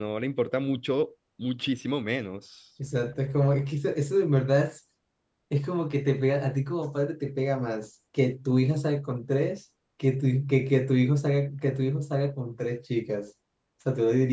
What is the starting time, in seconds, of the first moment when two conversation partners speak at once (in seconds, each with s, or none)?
none